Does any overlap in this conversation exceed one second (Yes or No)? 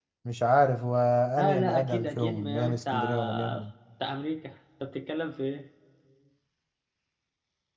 Yes